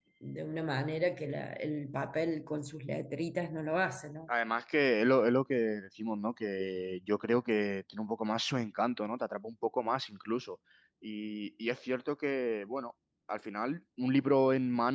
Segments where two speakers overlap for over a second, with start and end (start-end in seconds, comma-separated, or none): none